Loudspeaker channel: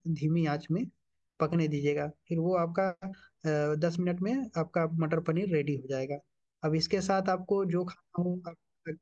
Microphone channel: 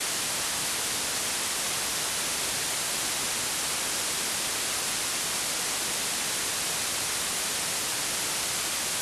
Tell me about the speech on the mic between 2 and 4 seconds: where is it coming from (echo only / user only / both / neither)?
neither